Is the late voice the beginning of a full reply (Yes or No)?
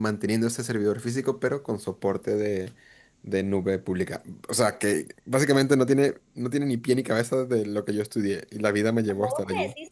Yes